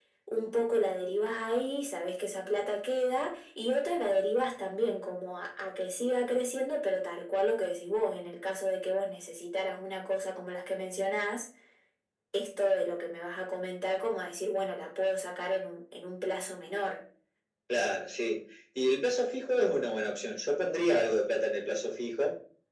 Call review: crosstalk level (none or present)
none